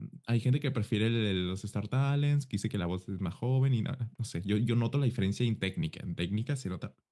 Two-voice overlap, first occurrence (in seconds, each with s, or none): none